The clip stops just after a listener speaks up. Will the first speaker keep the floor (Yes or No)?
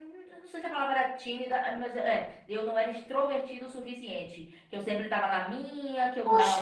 No